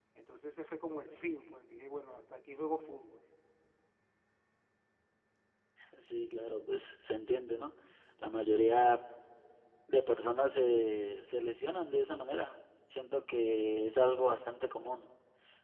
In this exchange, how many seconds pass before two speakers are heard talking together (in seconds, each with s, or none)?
none